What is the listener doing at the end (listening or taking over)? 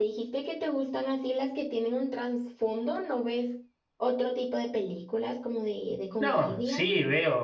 taking over